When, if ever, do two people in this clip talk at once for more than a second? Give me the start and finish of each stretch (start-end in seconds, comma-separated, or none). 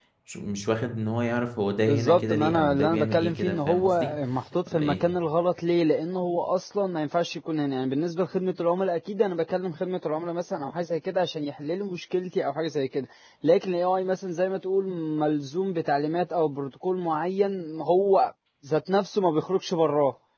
1.8-4.1